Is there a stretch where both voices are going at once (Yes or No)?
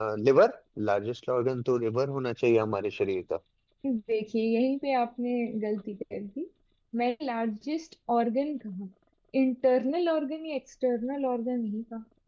No